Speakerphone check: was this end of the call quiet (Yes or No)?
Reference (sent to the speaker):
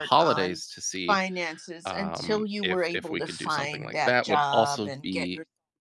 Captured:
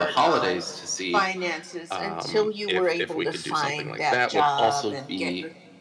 Yes